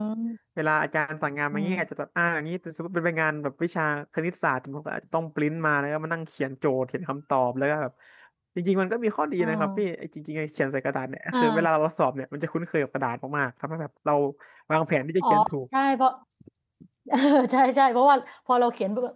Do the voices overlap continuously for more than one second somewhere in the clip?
No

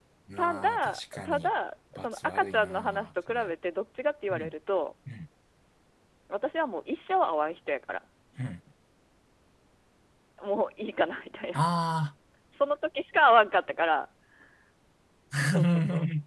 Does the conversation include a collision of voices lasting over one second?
Yes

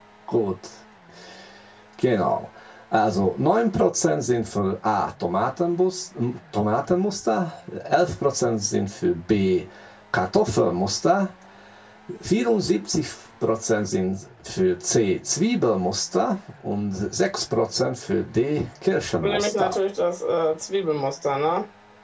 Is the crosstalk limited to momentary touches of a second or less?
Yes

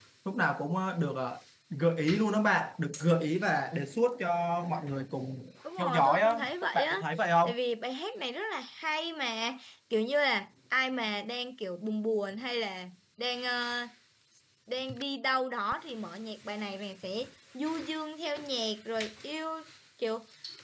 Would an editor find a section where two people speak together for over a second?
Yes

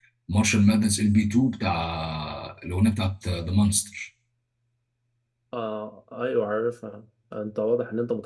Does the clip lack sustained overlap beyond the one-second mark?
Yes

